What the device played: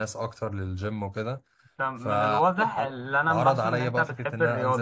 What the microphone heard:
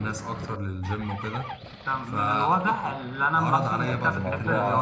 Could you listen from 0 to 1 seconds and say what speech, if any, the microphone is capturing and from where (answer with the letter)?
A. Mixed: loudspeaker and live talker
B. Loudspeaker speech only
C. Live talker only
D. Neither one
B